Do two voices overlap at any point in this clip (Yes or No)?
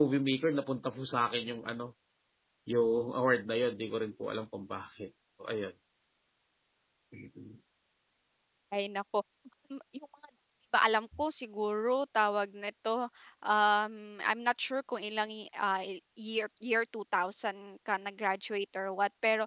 No